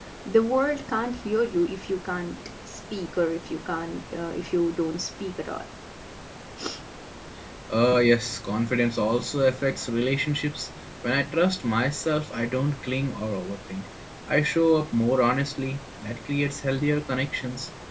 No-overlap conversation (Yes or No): Yes